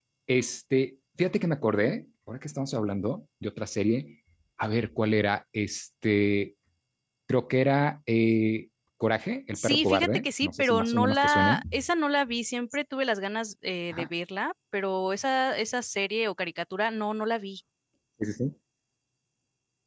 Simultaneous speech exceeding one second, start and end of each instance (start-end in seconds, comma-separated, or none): 9.6-11.6